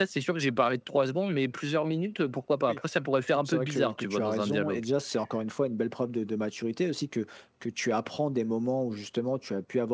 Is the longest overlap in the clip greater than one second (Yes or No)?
Yes